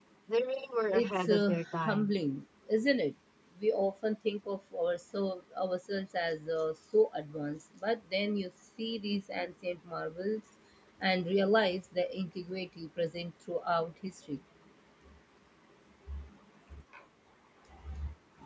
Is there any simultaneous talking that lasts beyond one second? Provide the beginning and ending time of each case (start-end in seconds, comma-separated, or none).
0.9-2.1